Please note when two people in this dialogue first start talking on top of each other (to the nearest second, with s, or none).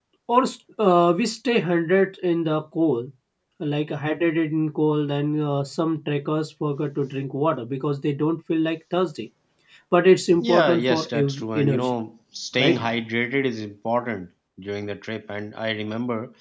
10 s